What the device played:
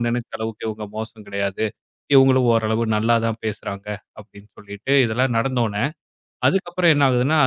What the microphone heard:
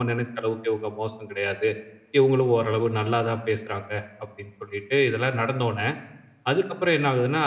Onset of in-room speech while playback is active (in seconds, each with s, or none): none